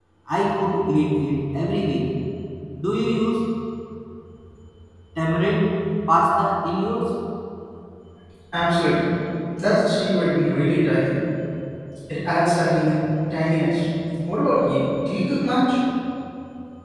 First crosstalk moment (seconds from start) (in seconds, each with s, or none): none